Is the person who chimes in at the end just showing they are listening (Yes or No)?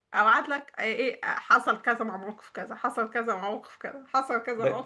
No